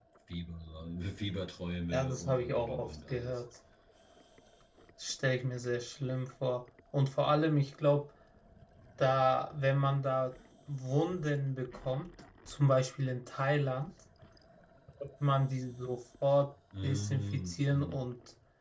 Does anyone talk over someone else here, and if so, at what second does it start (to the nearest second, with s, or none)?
2 s